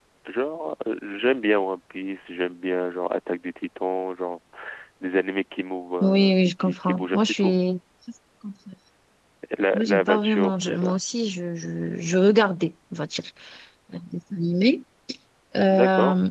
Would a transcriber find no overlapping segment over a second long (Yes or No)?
No